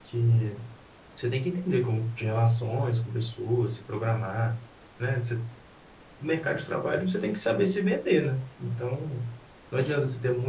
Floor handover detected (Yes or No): No